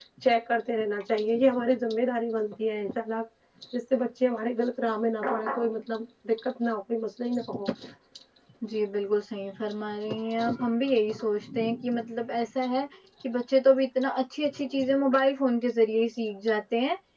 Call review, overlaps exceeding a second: none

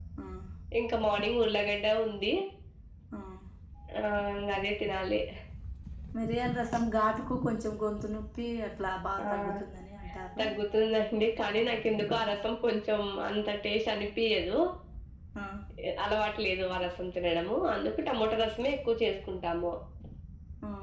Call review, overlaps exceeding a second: none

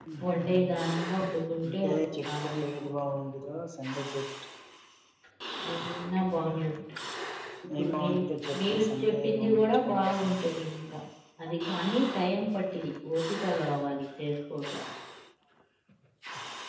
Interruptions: present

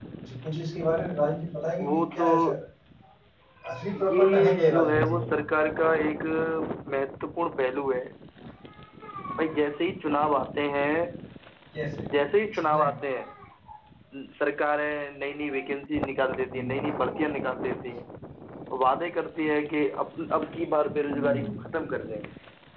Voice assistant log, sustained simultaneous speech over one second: present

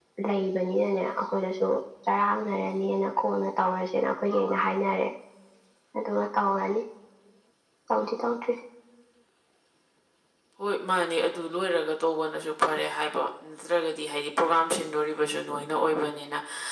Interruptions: none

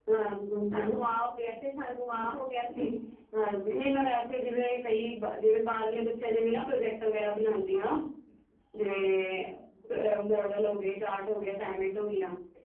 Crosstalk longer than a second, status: none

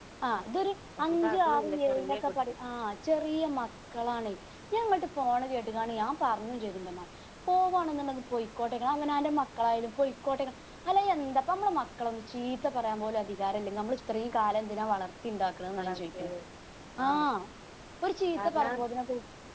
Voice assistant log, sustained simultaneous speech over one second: present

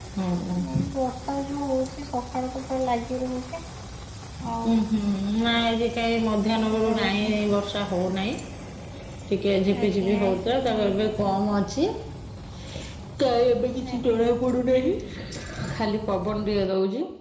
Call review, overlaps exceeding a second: present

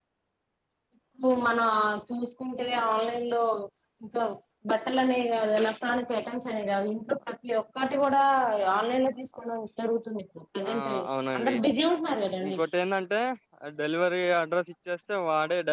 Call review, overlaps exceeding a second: none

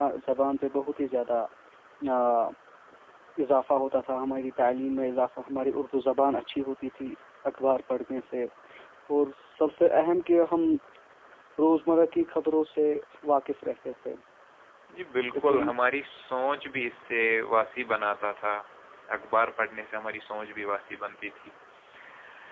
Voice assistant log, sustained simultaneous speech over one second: none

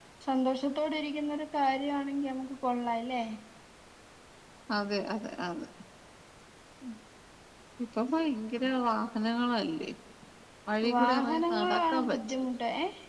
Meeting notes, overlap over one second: present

